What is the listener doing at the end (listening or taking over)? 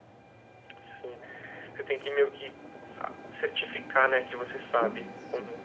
taking over